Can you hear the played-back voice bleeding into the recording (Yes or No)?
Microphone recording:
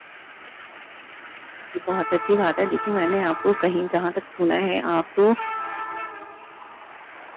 No